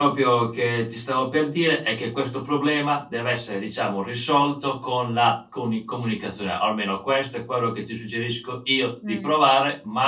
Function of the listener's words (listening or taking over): listening